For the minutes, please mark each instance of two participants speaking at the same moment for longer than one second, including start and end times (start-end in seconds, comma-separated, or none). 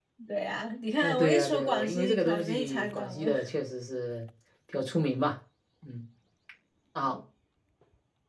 1.0-3.3